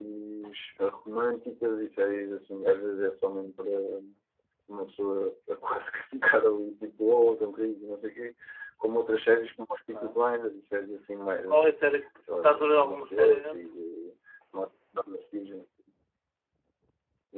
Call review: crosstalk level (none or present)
present